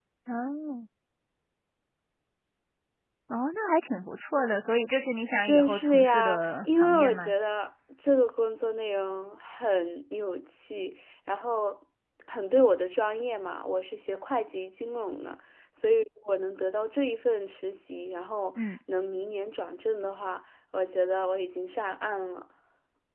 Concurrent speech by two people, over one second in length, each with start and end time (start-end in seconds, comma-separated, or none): 5.4-7.3